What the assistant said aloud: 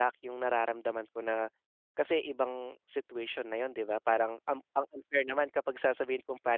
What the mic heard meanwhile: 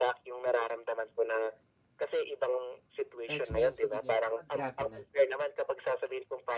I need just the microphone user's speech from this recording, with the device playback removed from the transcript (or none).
Na-experience ko din yun kapag grabe na